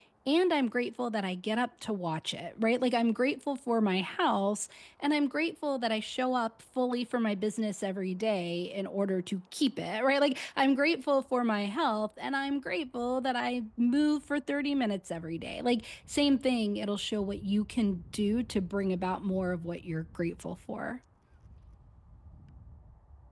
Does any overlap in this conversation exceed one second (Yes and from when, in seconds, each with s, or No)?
No